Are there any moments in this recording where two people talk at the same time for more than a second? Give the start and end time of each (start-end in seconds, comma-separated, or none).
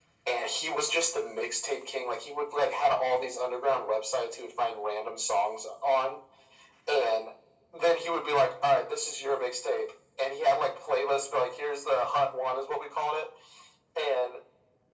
none